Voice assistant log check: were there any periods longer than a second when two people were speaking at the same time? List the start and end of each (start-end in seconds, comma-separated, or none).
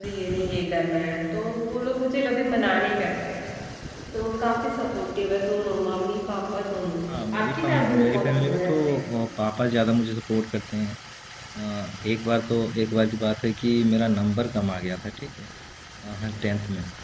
7.4-8.8